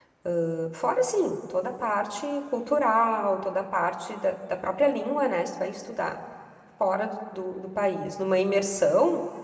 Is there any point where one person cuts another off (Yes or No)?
No